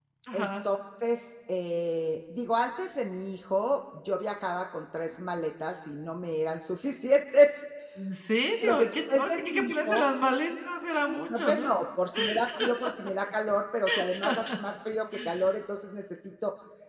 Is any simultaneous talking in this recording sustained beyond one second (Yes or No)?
Yes